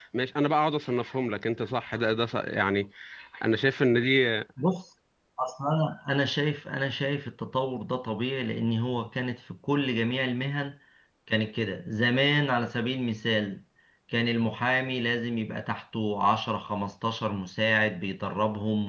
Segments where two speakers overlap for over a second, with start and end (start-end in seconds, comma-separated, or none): none